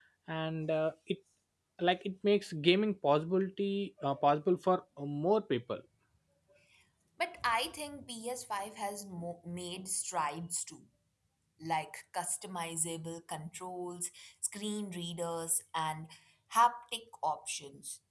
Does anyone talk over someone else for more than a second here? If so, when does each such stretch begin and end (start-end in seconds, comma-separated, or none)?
none